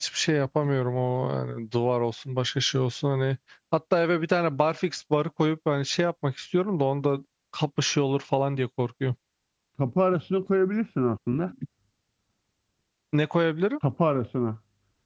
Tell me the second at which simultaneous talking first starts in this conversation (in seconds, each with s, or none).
none